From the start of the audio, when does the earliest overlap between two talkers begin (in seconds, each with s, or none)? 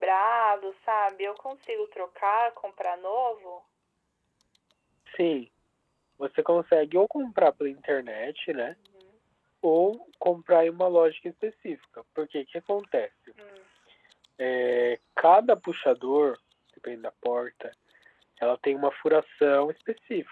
none